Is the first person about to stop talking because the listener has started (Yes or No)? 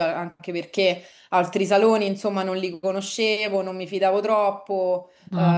No